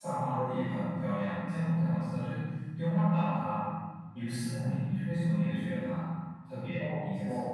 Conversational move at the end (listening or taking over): taking over